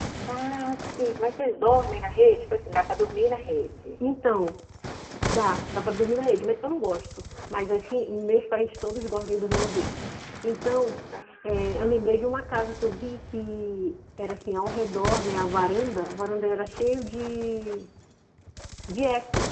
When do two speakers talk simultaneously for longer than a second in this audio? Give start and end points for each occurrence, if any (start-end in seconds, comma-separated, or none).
none